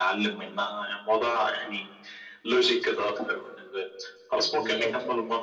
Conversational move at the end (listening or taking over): listening